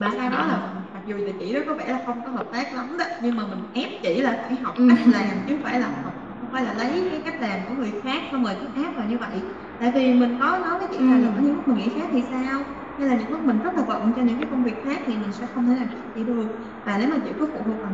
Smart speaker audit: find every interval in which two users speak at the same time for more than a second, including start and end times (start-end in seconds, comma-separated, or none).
none